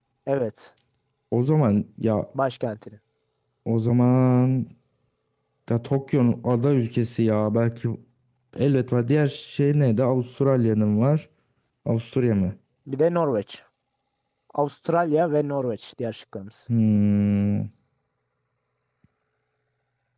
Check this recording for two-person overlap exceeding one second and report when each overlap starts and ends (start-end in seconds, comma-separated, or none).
none